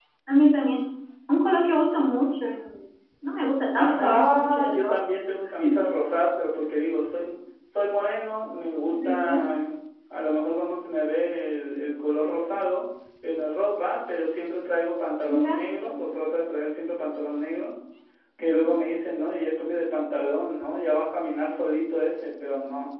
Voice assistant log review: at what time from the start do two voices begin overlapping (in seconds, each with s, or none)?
3.7 s